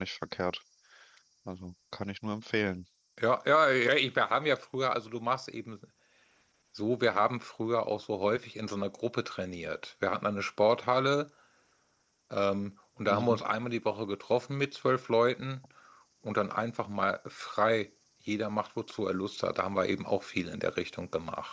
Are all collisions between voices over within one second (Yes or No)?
Yes